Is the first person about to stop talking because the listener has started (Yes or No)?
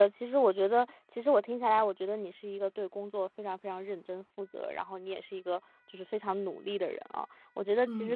No